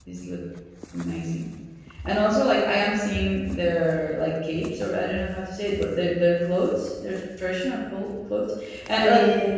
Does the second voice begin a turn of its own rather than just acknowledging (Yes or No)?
No